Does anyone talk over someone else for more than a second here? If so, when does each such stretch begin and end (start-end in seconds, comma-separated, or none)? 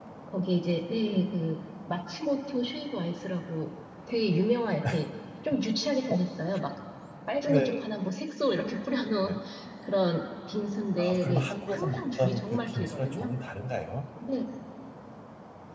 11.0-13.3